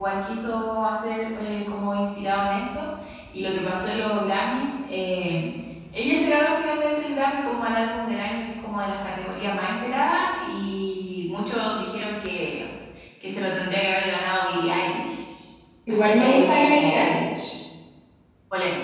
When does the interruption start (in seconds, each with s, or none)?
15.9 s